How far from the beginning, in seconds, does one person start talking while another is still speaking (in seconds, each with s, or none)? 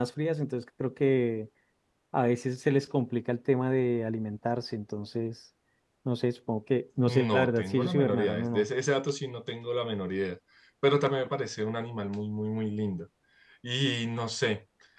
7.1 s